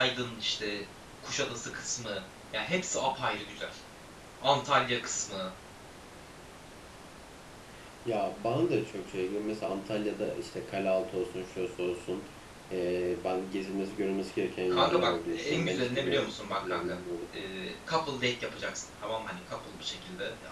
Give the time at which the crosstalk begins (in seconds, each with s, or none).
14.7 s